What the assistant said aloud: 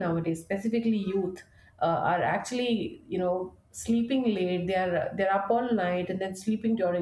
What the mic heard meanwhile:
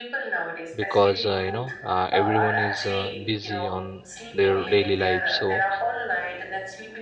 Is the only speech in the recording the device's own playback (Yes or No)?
No